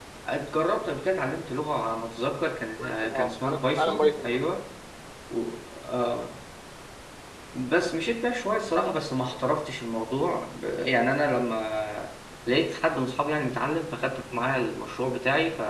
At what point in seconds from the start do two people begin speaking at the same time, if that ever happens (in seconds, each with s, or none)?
2.8 s